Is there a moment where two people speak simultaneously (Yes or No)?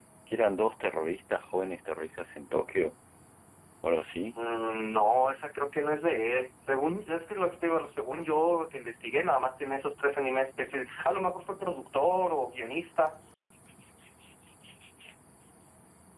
No